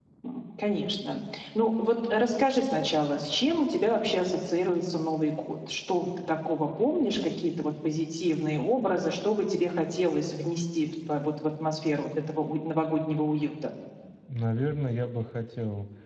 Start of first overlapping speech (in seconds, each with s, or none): none